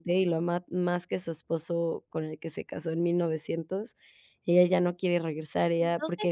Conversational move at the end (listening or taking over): taking over